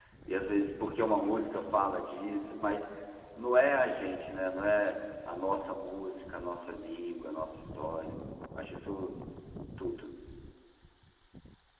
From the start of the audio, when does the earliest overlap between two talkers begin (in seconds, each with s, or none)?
none